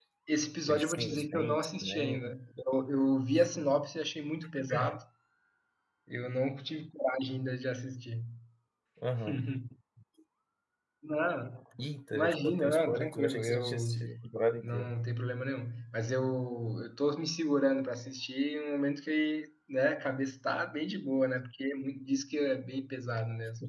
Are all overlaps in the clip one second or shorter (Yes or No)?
No